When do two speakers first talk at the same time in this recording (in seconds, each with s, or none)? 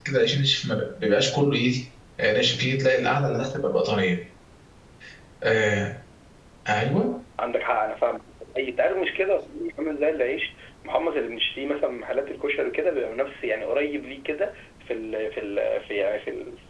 none